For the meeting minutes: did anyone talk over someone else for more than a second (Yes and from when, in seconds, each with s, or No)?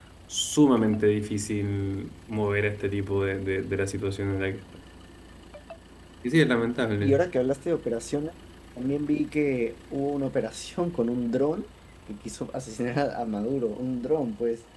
No